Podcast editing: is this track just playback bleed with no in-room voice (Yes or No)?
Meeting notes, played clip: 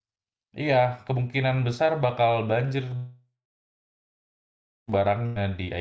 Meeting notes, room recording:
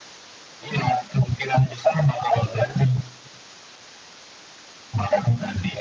Yes